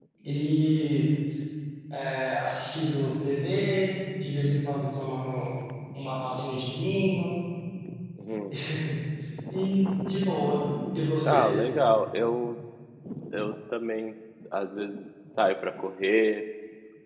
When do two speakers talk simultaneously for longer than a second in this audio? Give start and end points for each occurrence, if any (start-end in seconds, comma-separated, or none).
none